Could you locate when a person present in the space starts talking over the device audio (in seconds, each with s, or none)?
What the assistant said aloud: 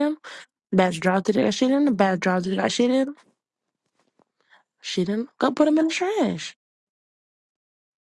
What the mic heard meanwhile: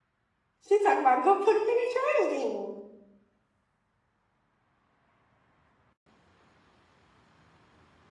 0.7 s